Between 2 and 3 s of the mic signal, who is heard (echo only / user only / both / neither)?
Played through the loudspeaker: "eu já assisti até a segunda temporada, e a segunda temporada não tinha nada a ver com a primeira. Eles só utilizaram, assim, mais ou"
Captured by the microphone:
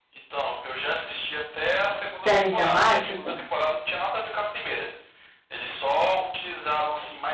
both